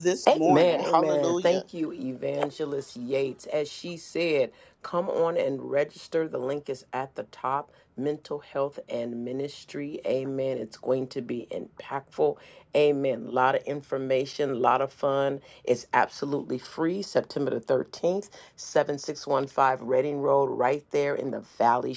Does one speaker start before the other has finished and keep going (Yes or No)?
Yes